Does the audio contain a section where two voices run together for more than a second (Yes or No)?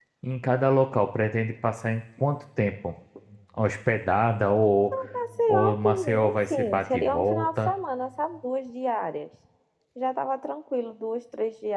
Yes